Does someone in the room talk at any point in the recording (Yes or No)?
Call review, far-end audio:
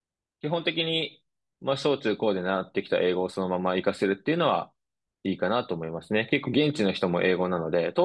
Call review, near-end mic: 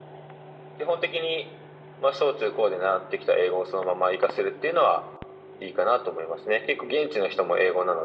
No